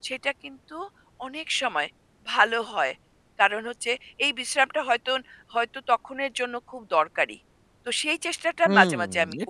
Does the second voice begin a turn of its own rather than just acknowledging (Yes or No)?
Yes